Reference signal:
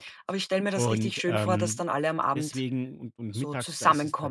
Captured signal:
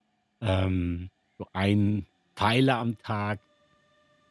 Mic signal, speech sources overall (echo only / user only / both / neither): user only